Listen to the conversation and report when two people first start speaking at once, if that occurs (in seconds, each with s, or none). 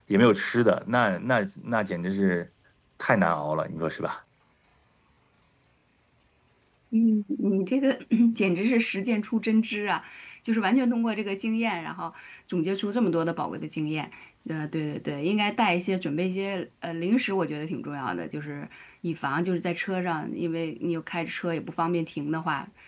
none